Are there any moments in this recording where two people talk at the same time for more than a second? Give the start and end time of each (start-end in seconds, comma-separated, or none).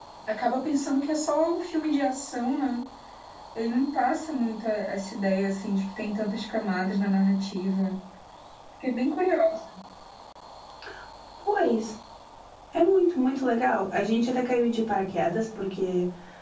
none